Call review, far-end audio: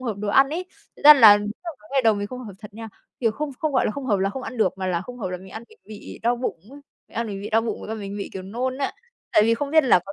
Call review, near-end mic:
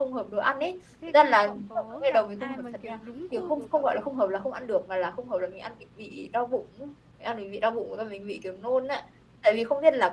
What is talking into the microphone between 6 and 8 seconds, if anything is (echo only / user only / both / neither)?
echo only